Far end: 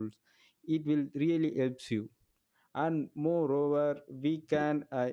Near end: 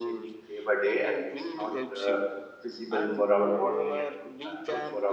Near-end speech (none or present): present